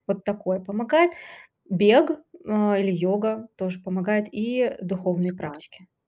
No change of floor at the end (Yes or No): No